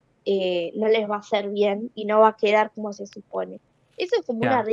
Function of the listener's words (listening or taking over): listening